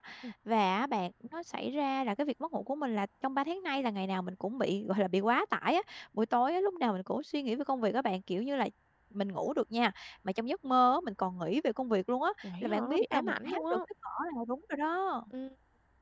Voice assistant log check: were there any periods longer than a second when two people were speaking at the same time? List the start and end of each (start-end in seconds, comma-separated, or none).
12.4-13.8